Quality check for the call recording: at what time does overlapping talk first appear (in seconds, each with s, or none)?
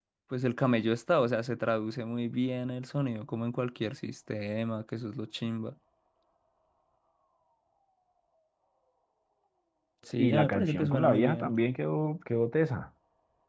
10.2 s